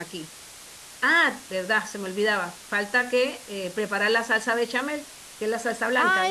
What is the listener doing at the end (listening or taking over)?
taking over